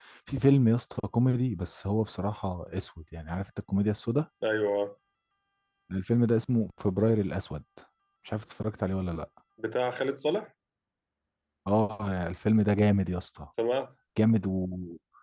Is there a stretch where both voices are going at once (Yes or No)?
No